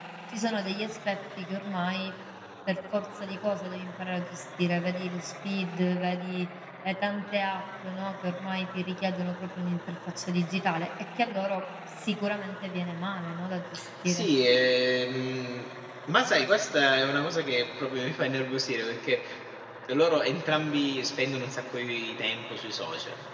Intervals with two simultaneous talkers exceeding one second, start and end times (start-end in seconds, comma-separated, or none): none